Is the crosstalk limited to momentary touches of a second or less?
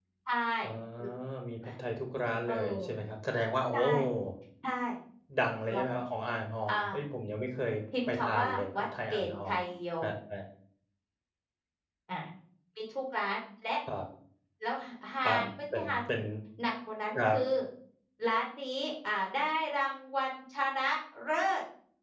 No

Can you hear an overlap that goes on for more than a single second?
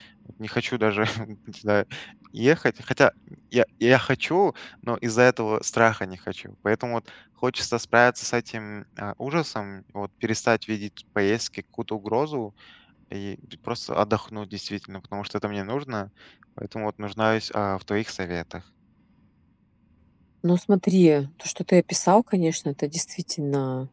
No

